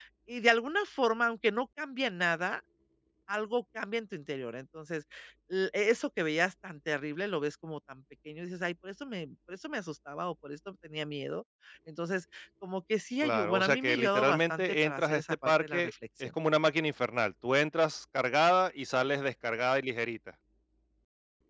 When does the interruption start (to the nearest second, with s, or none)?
13 s